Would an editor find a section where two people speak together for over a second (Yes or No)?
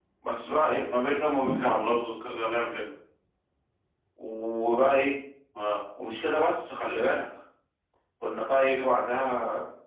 No